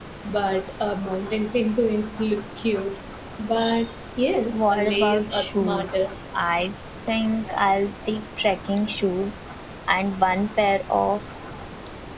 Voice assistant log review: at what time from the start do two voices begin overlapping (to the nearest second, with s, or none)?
4 s